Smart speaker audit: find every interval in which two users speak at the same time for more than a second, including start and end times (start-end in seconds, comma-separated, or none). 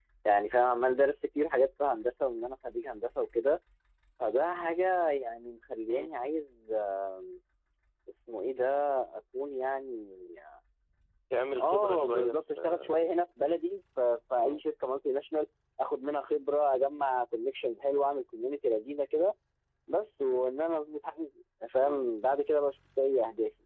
11.6-12.9